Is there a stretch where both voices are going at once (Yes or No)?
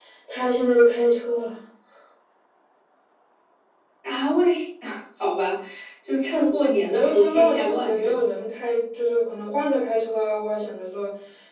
Yes